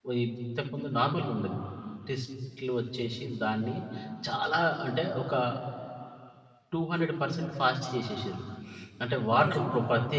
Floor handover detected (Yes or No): No